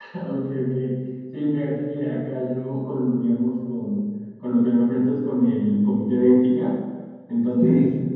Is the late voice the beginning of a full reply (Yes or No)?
No